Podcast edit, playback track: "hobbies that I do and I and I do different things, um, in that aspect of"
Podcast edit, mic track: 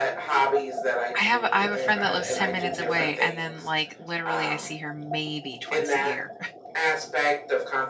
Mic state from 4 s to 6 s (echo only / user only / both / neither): both